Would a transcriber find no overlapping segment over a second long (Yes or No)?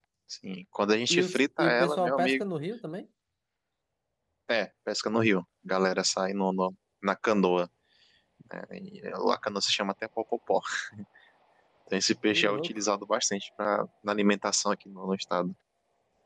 No